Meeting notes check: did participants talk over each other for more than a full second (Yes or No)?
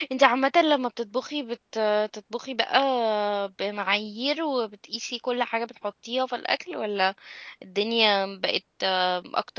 No